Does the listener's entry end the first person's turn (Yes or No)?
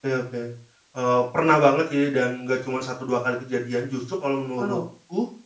No